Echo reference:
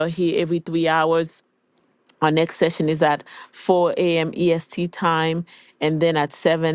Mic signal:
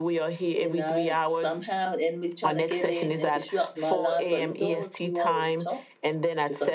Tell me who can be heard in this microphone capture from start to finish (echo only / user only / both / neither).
both